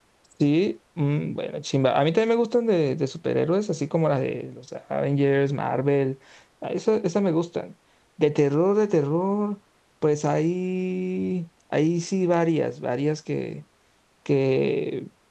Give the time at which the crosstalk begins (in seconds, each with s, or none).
none